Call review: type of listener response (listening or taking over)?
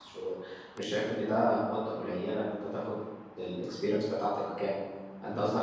listening